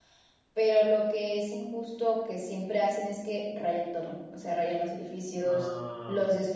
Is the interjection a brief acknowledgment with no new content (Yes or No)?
Yes